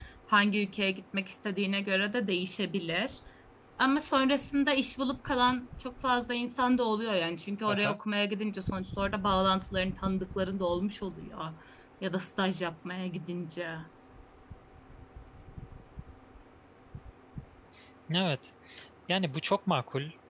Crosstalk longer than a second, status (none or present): none